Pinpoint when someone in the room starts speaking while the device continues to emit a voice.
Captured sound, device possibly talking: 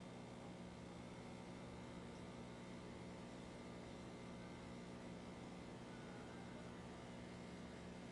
none

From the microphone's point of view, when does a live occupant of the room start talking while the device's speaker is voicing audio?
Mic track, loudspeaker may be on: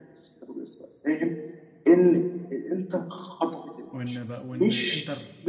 3.9 s

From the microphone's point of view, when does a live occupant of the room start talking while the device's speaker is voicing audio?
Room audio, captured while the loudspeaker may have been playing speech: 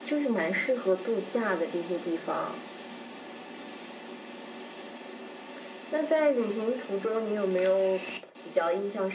none

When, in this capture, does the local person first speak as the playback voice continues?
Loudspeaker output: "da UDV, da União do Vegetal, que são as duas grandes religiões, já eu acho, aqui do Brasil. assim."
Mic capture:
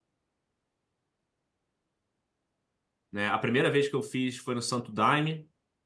3.1 s

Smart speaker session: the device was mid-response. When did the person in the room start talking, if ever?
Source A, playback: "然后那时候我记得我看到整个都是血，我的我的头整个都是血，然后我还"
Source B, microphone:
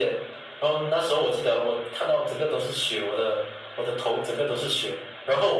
none

